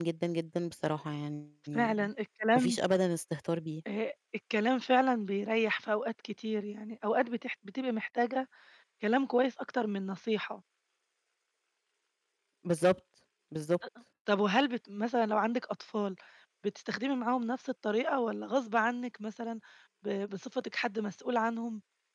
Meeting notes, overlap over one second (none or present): none